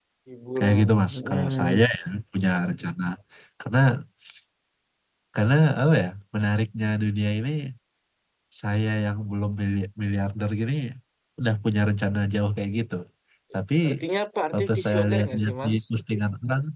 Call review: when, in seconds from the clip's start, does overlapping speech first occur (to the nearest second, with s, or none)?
1 s